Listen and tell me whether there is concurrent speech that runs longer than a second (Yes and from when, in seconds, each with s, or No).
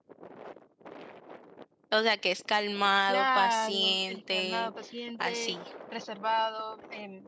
Yes, from 3.1 s